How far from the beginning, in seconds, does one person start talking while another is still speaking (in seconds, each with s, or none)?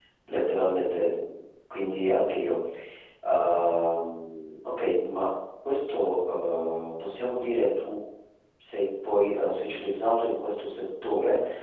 none